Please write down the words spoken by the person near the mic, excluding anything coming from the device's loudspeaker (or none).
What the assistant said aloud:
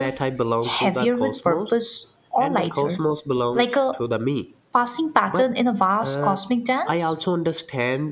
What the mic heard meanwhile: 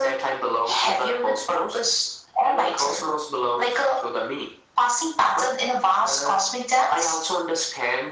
none